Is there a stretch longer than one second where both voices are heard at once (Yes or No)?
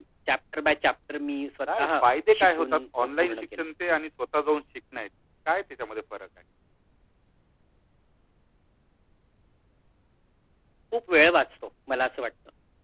Yes